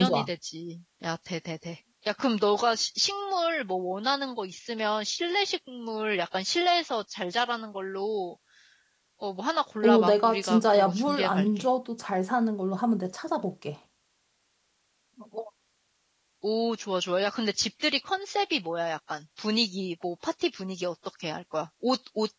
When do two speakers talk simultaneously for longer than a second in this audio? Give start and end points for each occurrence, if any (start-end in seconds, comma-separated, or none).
9.8-11.6